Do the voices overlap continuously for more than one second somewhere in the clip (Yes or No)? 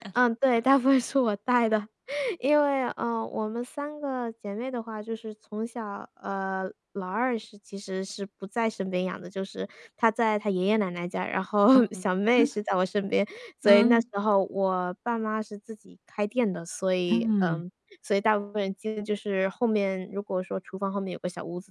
No